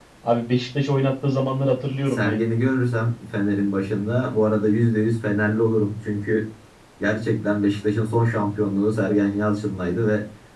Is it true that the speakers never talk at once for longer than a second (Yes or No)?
Yes